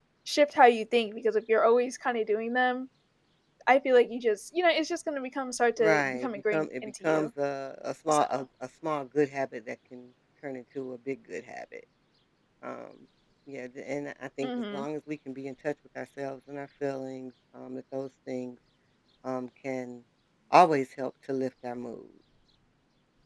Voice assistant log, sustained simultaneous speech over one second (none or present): present